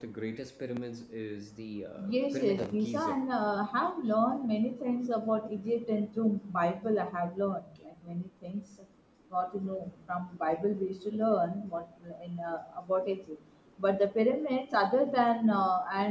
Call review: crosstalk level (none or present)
present